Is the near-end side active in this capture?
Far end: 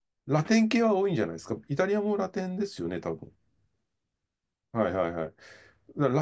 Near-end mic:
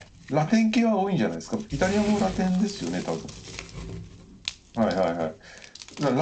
No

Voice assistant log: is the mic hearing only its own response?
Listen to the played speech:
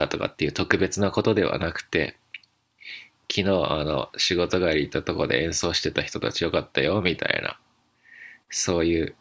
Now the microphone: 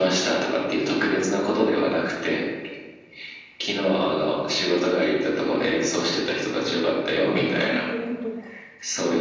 No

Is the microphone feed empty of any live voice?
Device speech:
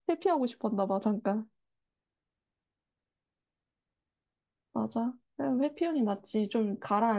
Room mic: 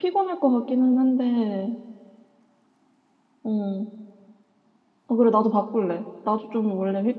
No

